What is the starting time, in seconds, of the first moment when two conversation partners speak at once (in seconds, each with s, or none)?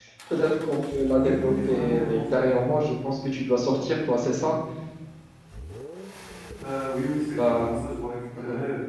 0.9 s